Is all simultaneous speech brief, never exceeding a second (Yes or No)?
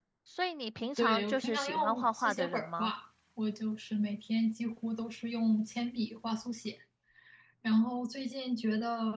No